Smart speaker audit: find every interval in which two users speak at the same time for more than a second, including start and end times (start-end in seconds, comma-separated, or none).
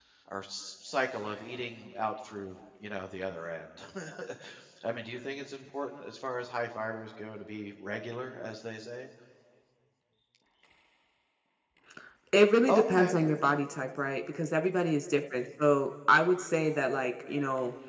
none